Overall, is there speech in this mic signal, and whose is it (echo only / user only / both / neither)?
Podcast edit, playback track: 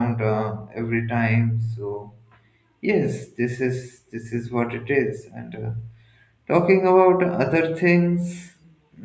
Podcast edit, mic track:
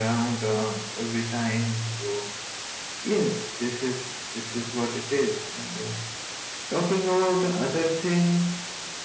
echo only